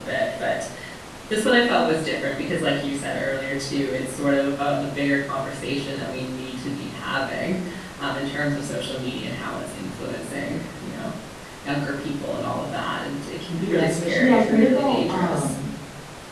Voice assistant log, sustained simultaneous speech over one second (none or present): present